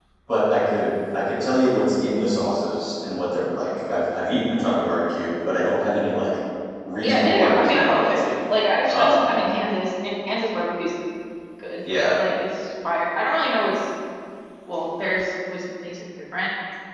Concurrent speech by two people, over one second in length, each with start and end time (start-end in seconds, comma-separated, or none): 7.0-8.2